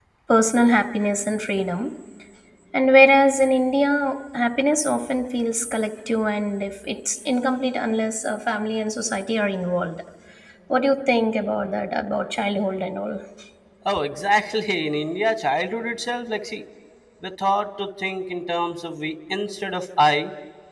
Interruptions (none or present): none